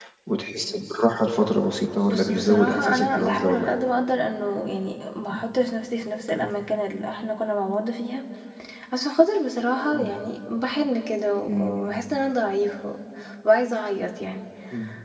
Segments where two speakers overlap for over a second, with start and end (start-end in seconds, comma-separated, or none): 2.1-3.7